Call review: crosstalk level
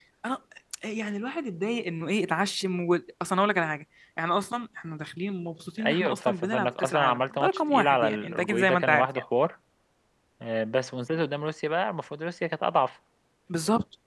present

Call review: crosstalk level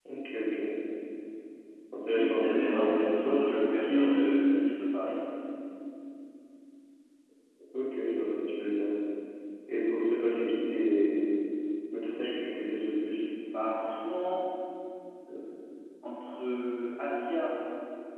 present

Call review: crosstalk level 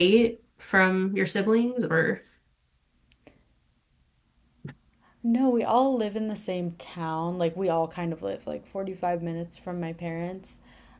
none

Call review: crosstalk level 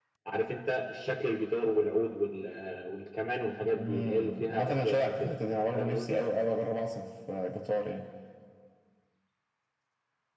present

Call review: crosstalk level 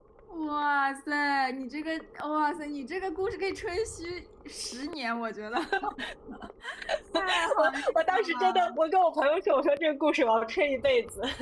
present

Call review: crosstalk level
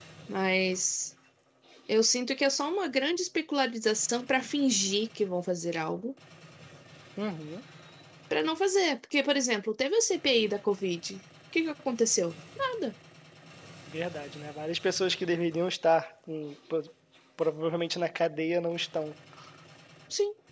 none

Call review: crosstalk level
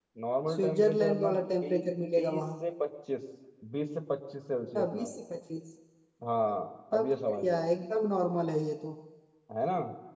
present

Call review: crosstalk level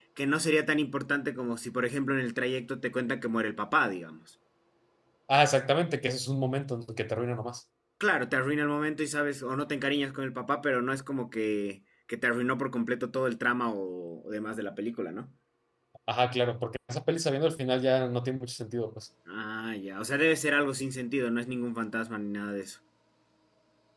none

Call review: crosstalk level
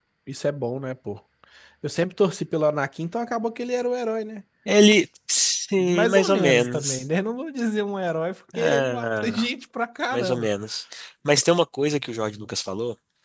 present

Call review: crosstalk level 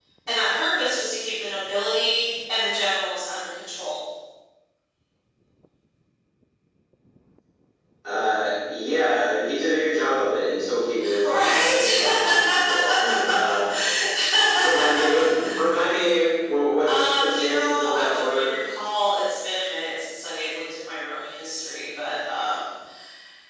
present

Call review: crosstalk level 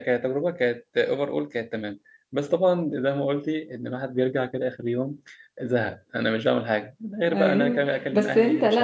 present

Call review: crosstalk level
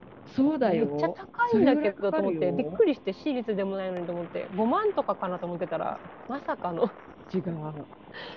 present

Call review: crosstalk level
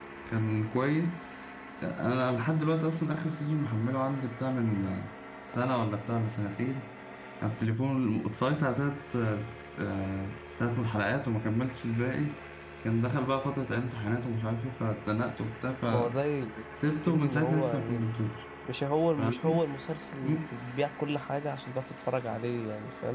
present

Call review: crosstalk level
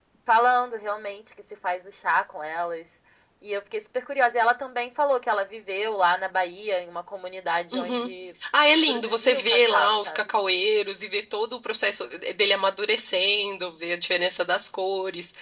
present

